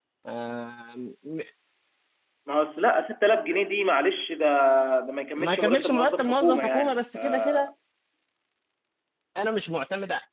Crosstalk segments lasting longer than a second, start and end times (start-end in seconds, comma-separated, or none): 5.4-7.7